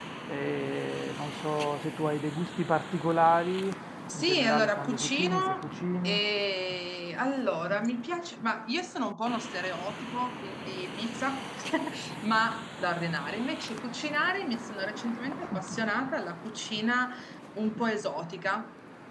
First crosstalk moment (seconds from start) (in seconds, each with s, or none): 4.1 s